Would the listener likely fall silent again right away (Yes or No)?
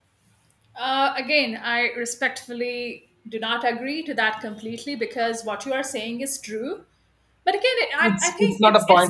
No